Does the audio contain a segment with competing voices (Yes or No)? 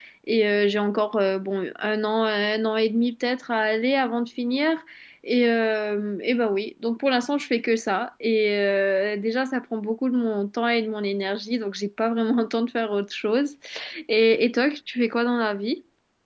No